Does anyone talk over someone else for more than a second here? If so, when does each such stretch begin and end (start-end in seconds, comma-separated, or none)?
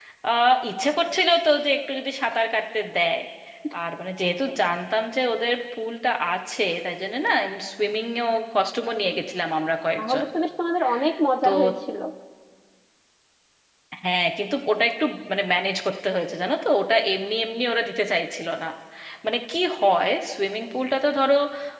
none